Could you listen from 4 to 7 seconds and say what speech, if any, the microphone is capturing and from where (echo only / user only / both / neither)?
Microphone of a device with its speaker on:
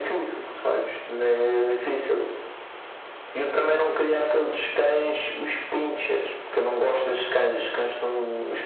echo only